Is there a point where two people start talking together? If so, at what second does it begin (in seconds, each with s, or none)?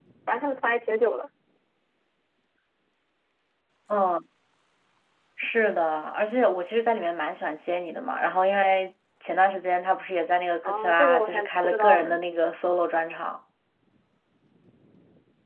10.6 s